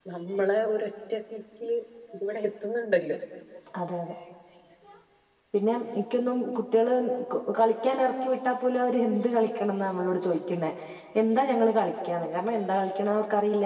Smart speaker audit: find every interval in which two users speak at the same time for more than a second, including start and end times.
none

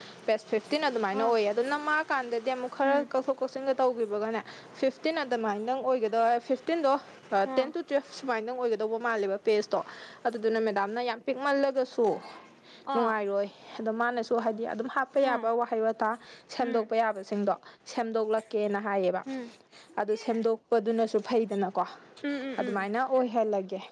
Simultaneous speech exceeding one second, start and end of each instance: none

